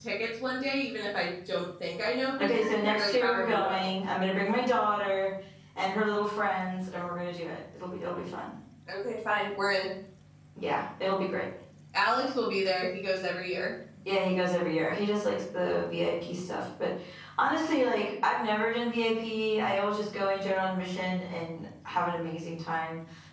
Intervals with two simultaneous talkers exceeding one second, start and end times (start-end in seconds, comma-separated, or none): 2.4-3.9